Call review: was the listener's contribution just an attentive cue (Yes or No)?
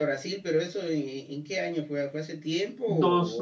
No